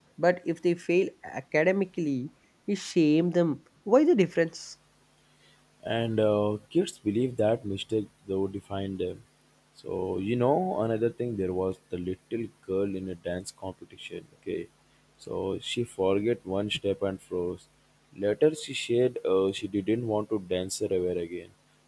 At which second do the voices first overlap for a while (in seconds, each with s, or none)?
none